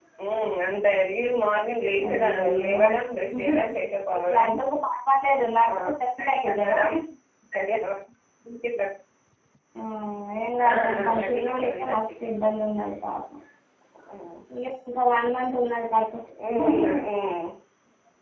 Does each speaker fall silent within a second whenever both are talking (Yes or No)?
No